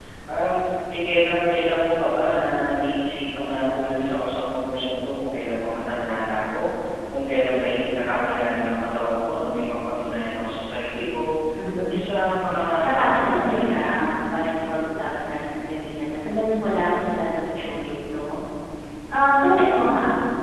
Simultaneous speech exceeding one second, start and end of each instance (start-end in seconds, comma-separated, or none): 12.5-13.9